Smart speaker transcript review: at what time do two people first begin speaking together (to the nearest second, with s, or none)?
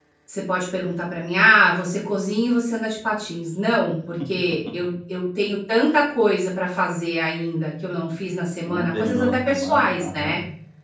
9 s